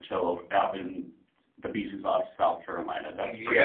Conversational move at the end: taking over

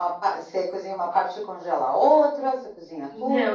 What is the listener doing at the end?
taking over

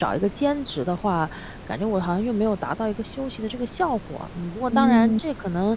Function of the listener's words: listening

